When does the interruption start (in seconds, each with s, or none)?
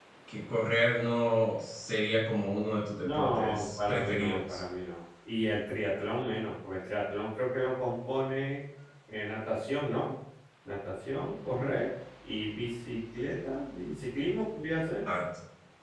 3.0 s